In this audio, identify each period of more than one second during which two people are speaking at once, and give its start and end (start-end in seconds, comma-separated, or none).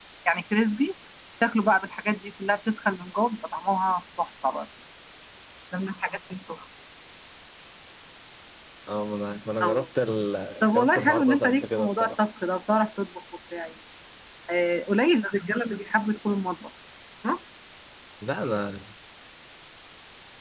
10.7-12.2